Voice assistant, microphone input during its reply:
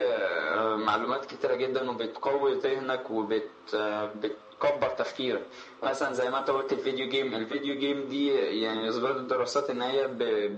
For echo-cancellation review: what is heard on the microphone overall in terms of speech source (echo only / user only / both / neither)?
echo only